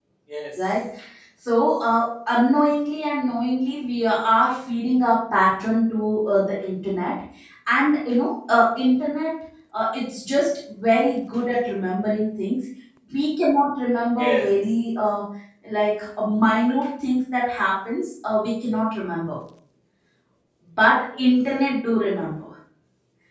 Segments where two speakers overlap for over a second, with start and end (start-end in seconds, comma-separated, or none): none